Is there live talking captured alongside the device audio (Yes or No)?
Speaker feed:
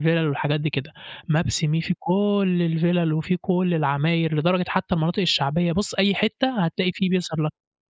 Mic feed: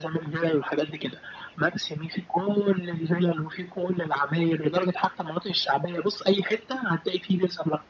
No